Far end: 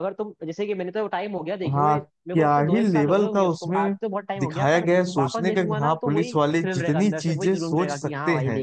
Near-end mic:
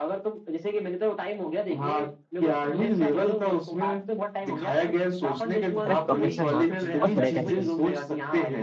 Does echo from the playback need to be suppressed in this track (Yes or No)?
Yes